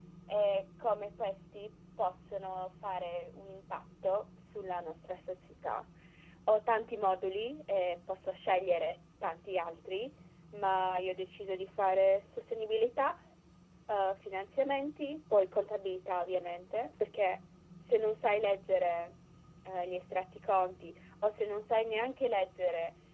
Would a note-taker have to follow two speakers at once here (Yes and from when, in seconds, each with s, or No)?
No